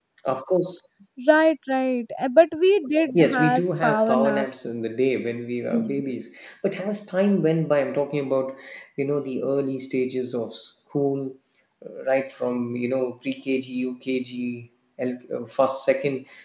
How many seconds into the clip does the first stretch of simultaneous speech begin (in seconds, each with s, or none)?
3.1 s